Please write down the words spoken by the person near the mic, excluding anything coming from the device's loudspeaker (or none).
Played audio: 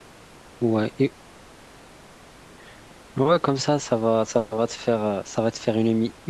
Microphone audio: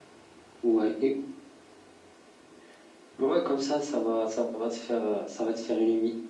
none